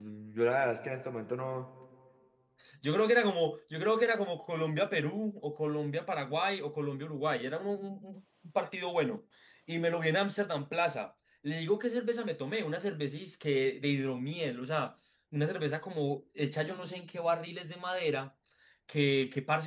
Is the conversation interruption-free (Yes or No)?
Yes